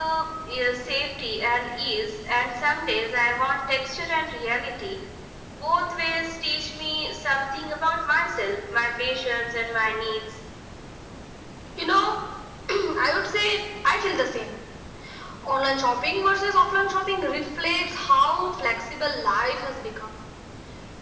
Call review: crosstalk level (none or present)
none